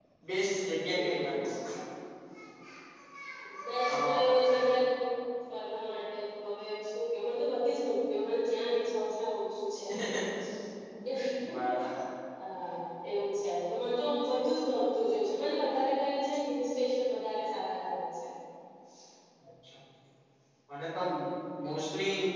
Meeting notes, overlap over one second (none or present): none